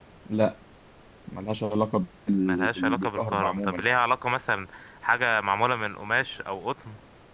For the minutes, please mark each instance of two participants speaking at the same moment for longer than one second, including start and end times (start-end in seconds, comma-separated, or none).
2.5-3.9